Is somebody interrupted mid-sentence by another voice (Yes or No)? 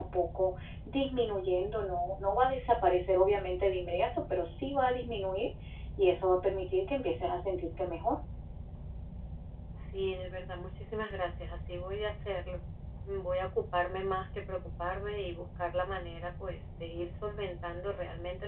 No